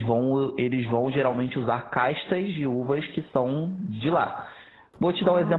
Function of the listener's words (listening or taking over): listening